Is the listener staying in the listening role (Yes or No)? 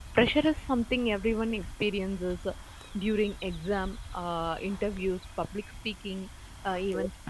Yes